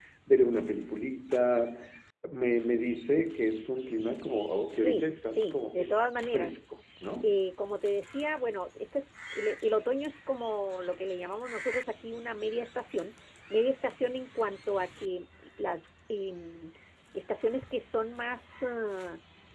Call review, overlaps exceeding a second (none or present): present